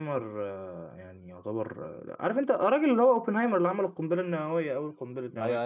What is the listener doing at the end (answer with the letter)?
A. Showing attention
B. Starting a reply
B